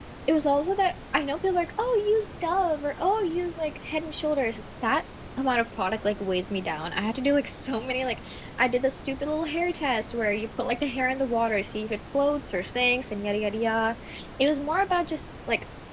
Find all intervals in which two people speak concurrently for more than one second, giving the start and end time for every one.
none

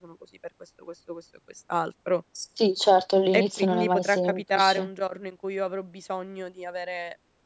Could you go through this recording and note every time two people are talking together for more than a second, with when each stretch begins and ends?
3.4-4.9

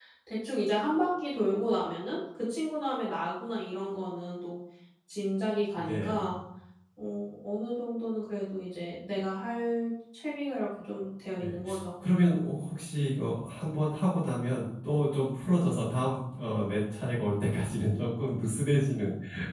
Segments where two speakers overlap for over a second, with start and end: none

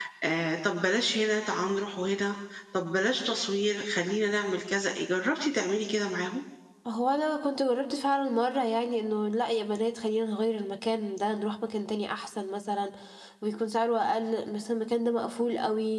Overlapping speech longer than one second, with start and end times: none

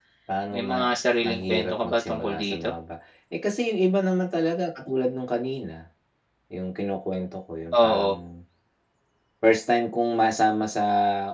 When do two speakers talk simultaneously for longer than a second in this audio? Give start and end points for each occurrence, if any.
0.5-2.7

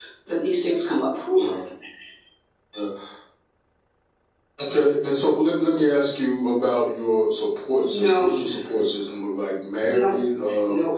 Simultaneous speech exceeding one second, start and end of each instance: none

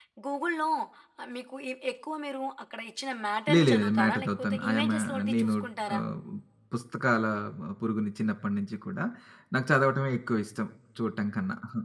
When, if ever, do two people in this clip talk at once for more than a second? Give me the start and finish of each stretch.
3.5-5.5

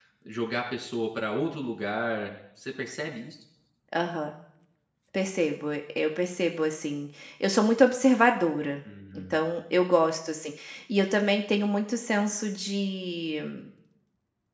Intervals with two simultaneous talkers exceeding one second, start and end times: none

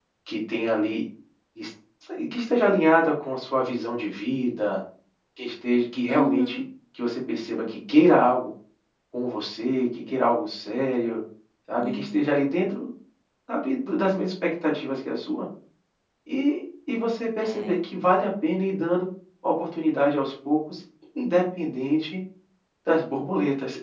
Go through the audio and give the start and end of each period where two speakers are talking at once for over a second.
none

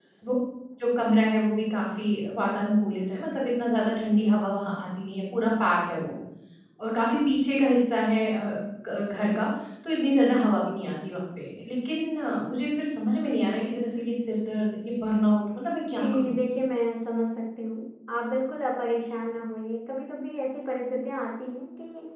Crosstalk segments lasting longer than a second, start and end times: none

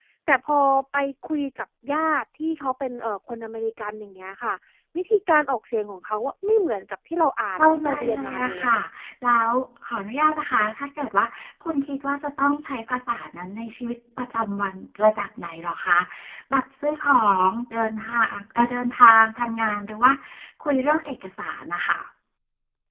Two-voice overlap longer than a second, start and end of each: 7.6-8.8

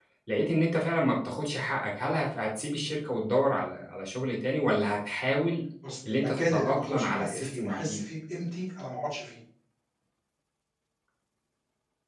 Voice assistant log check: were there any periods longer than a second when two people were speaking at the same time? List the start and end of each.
6.1-8.0

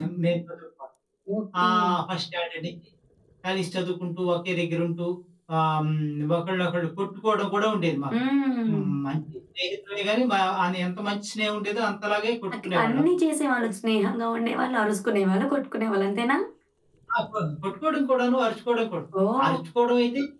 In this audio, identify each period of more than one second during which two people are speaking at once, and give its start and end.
none

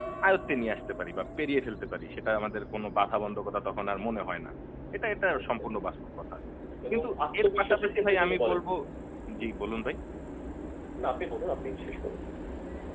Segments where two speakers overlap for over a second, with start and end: 6.9-8.6

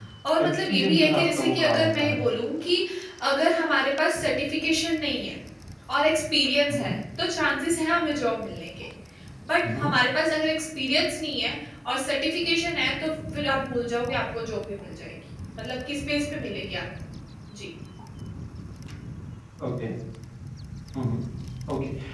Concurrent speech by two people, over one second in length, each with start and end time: 0.7-2.2

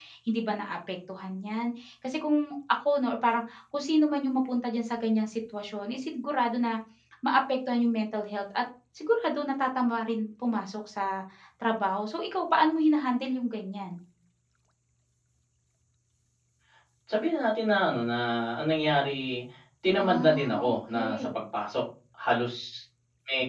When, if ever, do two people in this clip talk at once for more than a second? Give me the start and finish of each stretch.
20.0-21.4

